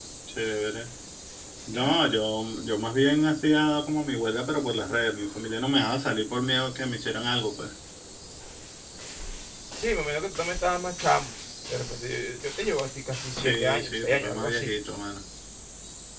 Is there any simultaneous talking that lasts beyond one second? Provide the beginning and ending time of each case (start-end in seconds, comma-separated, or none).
13.4-14.7